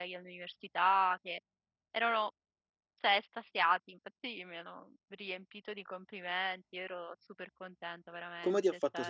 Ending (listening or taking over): taking over